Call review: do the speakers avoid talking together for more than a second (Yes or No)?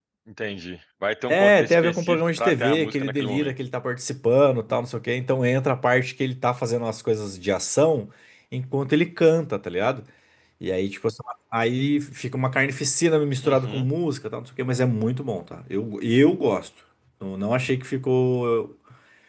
No